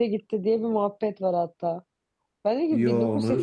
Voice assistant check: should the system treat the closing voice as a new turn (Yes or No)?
No